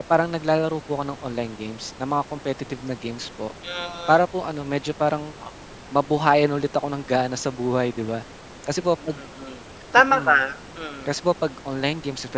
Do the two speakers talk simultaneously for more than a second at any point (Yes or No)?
No